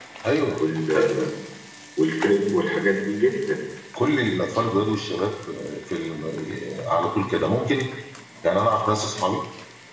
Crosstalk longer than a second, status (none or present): none